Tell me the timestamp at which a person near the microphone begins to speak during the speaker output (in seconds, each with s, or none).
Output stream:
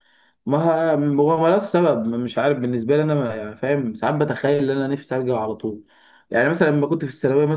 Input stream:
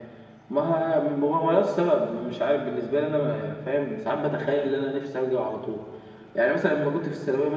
none